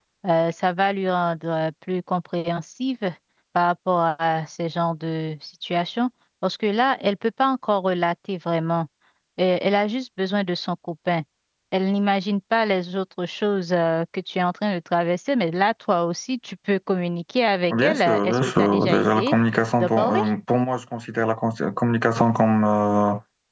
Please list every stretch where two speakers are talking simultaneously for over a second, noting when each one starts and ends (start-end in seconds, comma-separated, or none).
17.7-19.4